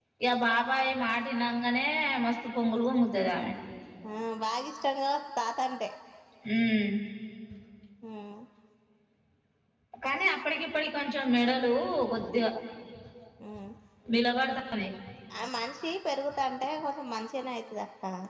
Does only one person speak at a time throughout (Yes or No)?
Yes